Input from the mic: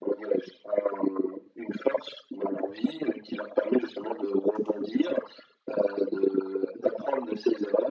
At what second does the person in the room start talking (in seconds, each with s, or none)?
none